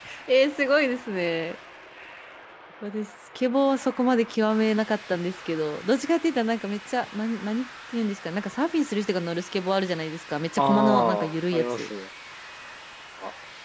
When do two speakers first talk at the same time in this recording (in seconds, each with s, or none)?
10.6 s